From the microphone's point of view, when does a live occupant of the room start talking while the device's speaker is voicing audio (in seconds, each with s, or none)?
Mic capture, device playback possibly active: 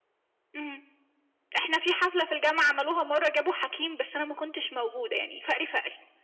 none